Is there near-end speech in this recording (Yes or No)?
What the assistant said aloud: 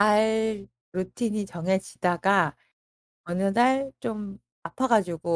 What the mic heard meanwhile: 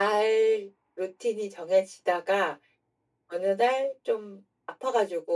No